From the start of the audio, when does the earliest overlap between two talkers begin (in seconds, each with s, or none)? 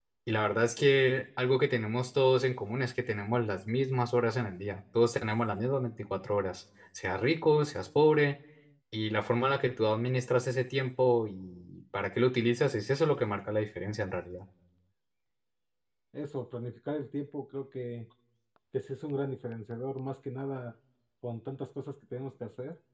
none